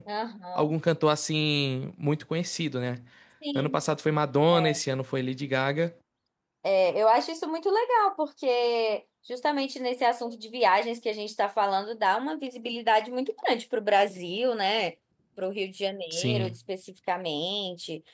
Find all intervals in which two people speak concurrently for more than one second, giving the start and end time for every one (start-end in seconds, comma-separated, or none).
none